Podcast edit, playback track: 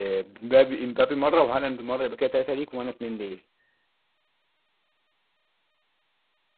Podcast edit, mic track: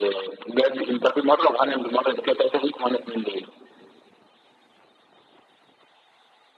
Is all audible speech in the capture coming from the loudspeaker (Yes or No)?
Yes